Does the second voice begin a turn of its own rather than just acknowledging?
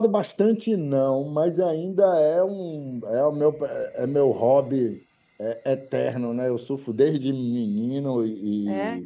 No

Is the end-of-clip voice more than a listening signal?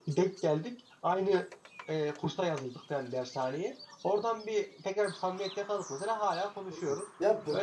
Yes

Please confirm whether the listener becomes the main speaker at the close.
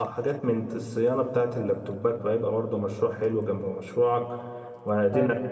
No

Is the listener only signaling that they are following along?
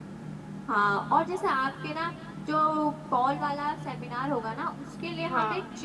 Yes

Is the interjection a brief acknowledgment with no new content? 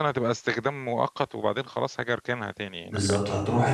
No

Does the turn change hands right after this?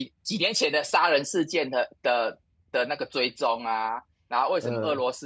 No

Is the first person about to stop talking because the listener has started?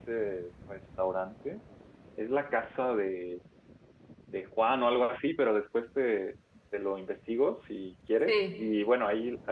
No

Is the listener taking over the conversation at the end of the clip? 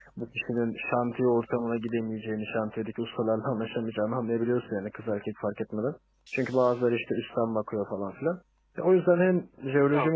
No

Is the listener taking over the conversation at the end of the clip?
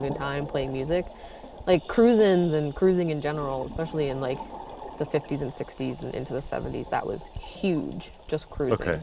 No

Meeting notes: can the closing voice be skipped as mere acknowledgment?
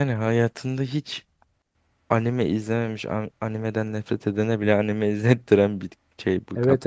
No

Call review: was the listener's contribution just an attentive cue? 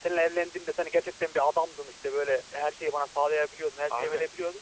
Yes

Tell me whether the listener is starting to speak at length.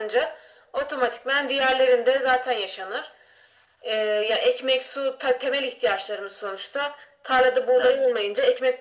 No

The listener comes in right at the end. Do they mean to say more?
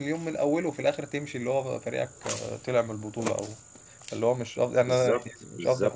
Yes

